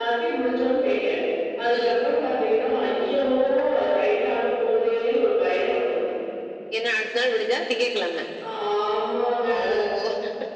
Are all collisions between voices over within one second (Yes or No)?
Yes